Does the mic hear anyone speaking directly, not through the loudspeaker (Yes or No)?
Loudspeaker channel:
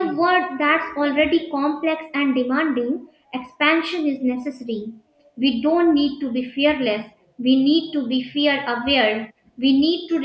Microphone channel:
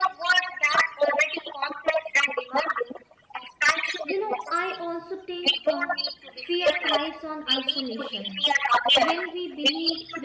Yes